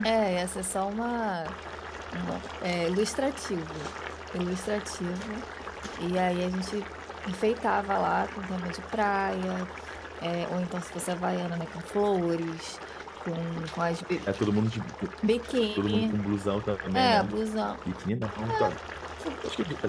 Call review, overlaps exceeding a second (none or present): none